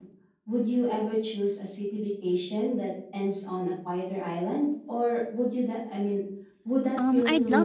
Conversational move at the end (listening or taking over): taking over